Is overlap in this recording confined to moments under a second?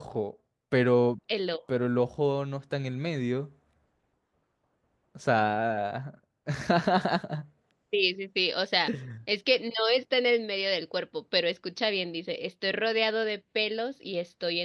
Yes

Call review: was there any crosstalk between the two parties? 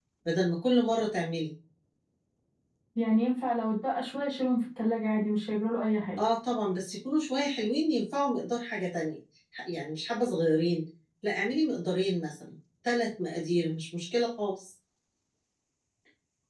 No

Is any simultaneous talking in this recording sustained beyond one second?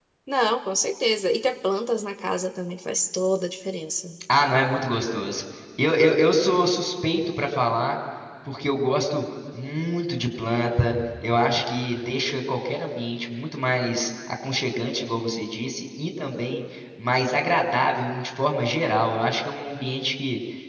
No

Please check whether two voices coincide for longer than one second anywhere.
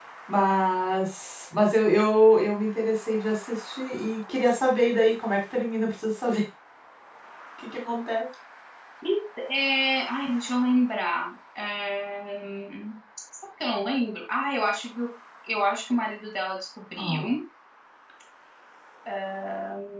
No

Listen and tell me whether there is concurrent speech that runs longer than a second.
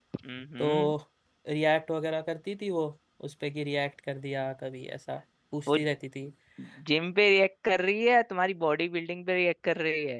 No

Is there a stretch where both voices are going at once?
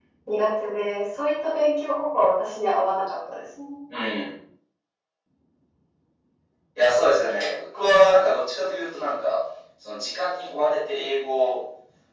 No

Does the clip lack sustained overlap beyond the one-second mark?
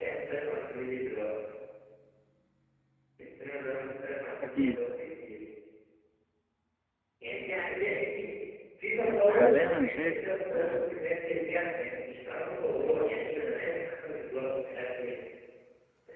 No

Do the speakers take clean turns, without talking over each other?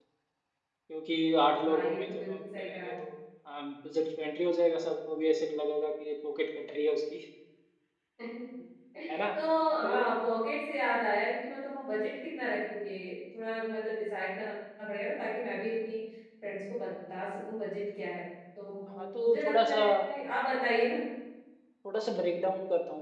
No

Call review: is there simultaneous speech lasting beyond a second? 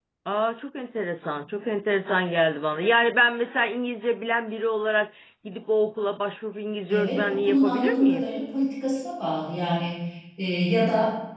Yes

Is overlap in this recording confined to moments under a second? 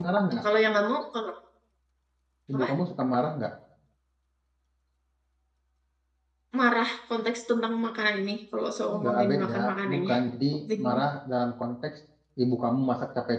No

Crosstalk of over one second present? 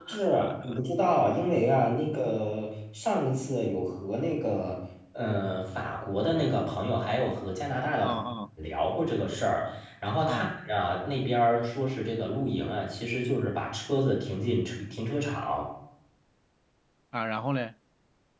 No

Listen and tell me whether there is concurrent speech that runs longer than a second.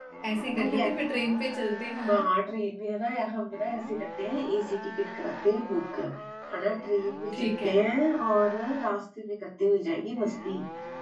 No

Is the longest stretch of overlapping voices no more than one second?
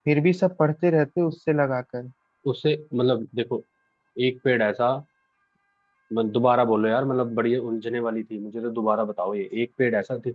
Yes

